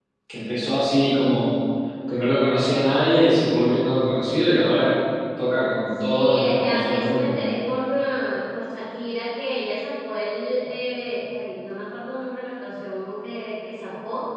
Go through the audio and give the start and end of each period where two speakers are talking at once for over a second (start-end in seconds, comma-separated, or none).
6.1-7.3